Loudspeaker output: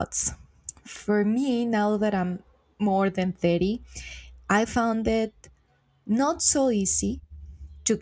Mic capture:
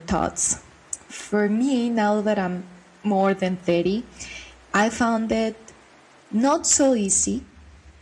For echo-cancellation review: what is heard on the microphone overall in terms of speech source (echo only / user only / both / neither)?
echo only